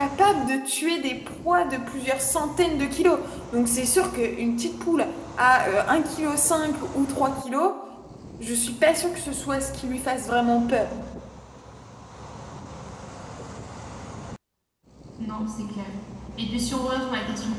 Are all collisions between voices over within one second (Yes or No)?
Yes